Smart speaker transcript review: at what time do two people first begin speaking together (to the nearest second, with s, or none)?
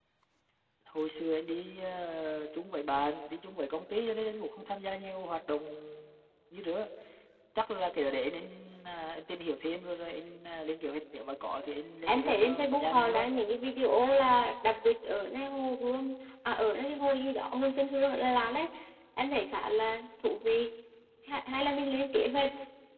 12 s